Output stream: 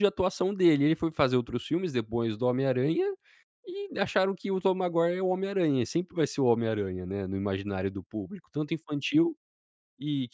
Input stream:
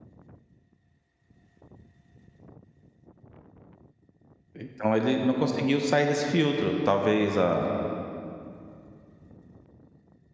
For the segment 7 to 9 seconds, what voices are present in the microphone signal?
user only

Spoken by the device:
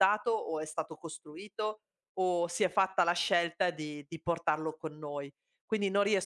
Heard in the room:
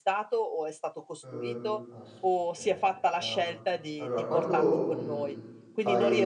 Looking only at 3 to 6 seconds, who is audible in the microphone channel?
both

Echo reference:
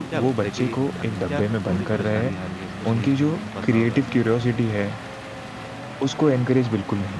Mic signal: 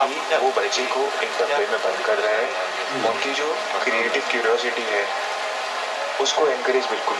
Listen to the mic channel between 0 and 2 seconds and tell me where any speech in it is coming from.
echo only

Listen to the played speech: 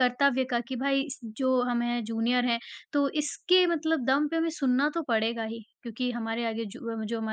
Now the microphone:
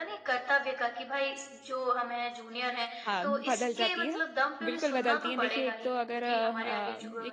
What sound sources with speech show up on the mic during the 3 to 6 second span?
both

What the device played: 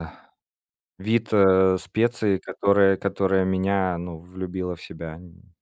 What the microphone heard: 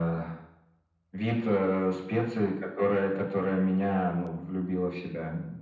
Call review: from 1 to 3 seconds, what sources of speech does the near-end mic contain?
echo only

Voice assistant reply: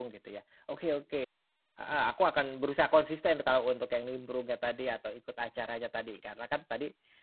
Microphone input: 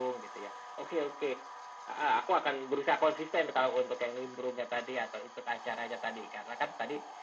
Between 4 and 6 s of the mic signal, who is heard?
echo only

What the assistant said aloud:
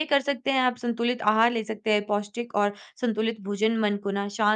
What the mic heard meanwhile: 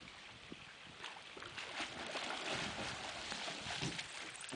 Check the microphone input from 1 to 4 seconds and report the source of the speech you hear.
neither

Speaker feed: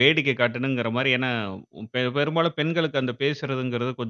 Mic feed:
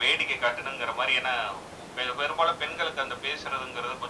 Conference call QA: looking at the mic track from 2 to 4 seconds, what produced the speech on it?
echo only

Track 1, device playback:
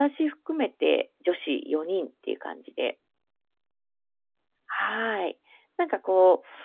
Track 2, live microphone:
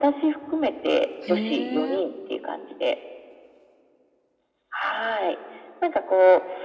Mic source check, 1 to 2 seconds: both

